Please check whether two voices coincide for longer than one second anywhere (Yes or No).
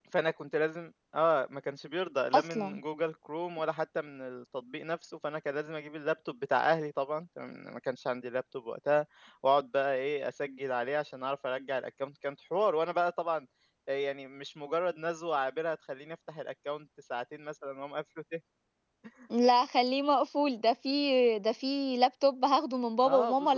No